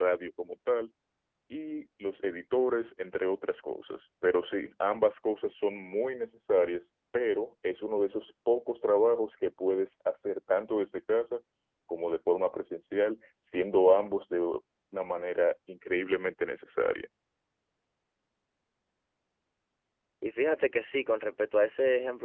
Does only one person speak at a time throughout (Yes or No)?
Yes